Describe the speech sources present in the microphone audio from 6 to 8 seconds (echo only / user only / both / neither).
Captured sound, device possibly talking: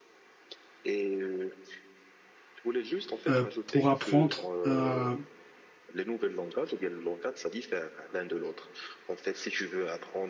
echo only